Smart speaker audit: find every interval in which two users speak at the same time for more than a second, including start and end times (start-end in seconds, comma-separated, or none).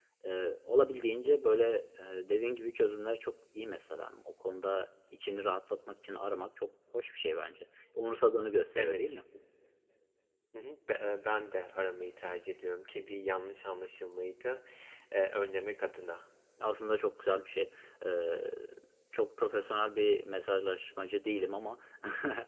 none